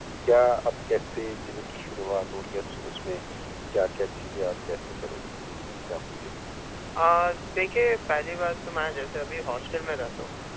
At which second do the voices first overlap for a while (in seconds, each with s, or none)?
none